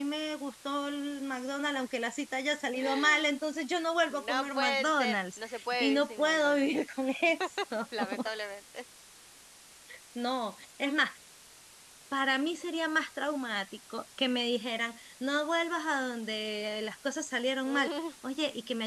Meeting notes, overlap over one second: present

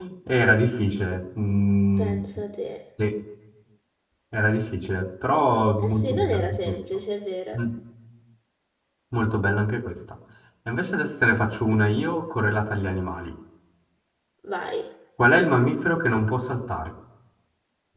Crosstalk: present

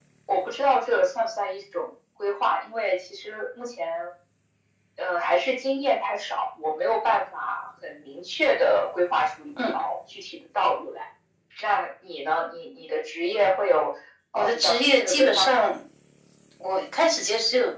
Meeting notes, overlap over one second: present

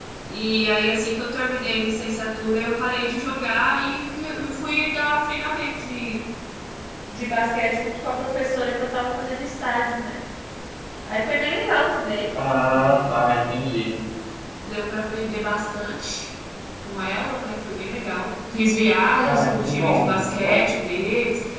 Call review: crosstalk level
present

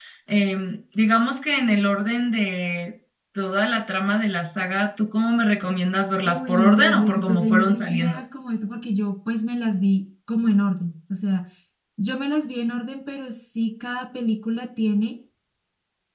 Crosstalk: present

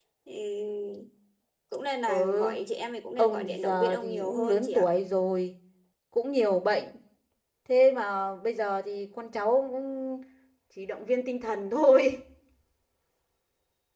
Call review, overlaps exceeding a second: present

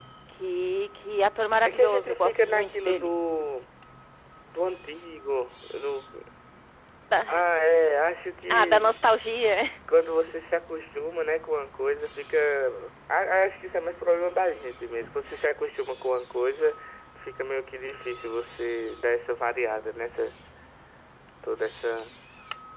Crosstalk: present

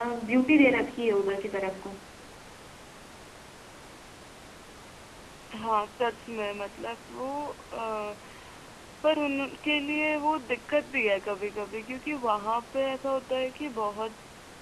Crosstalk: none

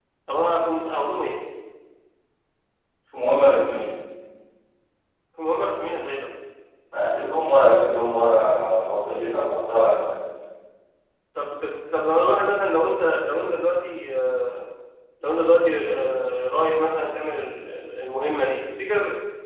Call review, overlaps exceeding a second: none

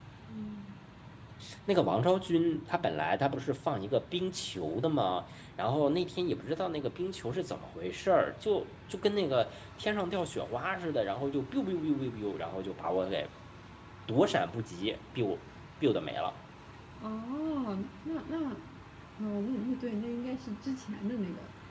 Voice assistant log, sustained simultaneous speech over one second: none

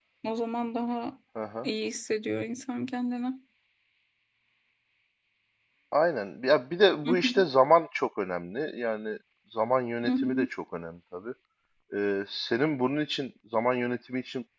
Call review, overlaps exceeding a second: none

